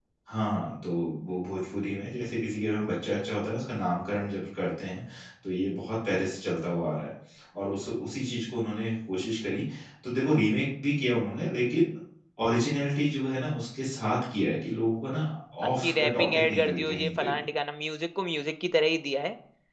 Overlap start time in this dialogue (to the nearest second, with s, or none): 16 s